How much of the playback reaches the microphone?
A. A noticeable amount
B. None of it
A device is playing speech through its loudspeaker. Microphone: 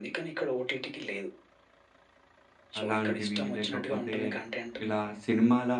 A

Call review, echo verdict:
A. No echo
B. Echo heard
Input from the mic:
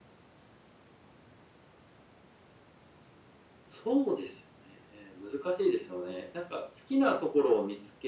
B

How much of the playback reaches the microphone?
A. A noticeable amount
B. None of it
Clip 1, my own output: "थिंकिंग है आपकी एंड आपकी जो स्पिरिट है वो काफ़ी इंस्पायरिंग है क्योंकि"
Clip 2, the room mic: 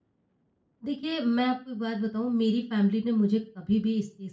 B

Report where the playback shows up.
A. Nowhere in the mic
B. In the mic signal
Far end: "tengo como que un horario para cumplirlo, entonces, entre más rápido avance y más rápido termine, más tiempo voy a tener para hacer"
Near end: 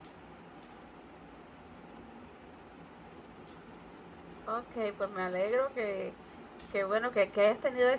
A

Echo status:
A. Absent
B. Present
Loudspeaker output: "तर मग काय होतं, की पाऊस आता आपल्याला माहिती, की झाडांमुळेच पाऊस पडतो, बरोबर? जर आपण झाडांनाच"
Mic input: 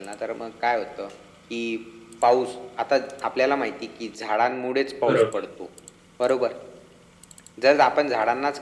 B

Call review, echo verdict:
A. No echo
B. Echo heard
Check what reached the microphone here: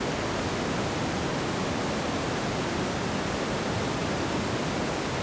A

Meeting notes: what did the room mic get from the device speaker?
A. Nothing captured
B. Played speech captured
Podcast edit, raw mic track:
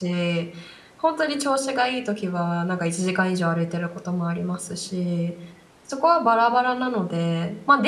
A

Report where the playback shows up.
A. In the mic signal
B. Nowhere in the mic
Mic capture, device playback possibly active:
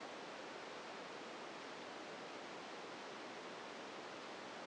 B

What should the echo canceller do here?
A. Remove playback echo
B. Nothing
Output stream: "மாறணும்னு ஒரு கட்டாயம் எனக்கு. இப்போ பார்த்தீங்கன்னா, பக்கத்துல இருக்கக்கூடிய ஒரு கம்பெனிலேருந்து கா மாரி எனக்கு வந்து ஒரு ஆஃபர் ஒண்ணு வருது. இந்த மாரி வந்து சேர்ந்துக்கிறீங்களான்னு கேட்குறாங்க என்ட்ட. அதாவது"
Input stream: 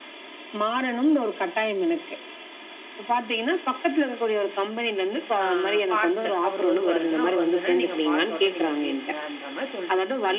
A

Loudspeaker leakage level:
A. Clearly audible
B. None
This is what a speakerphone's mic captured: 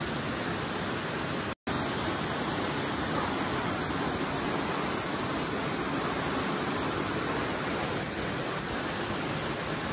B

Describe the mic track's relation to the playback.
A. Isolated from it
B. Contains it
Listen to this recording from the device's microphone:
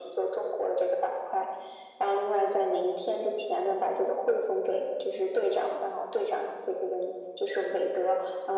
B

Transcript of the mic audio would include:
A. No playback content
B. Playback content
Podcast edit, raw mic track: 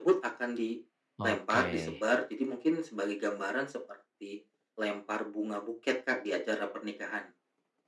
B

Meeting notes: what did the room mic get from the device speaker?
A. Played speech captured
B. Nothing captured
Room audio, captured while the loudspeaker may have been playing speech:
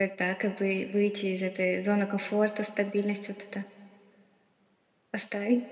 B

